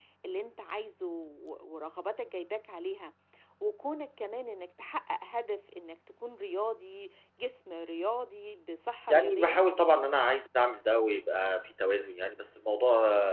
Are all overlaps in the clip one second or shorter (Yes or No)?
Yes